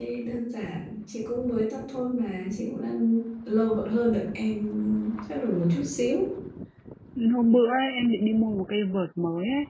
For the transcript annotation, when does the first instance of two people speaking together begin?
none

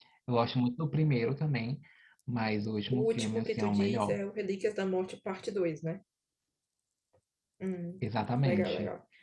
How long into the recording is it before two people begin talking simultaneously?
3 s

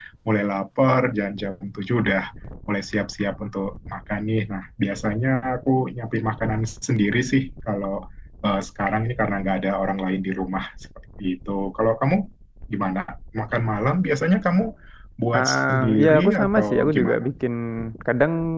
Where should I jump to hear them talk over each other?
15 s

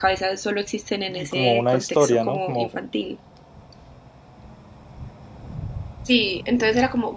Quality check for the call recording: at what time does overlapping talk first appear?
1 s

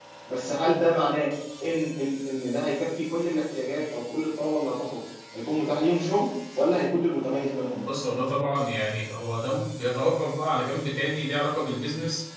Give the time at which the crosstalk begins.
none

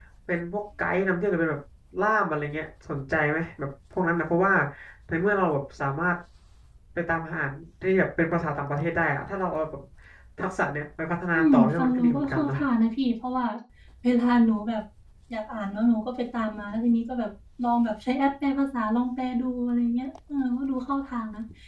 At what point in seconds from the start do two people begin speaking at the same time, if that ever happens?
11 s

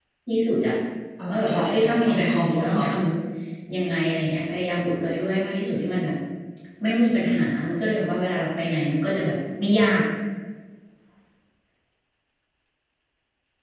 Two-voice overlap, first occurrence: 1 s

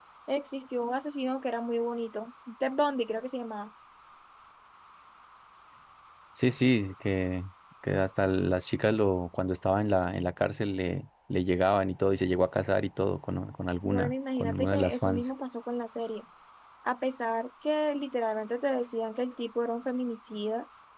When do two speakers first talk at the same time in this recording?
14 s

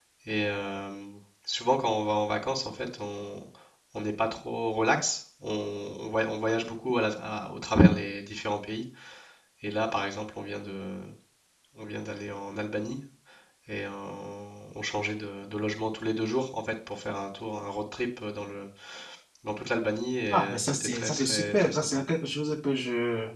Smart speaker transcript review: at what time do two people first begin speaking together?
20 s

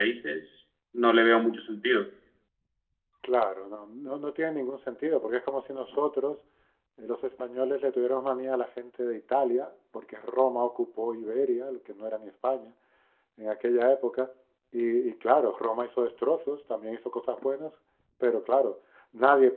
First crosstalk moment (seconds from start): none

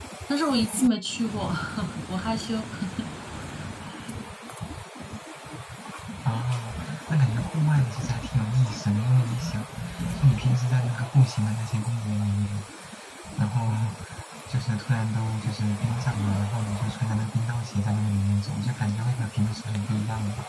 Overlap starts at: none

